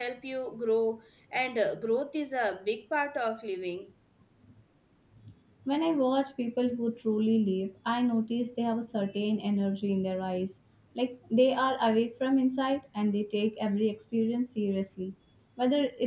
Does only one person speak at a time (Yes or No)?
Yes